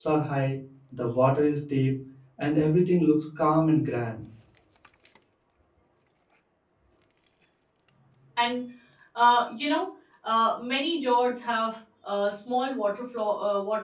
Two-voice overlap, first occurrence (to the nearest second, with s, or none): none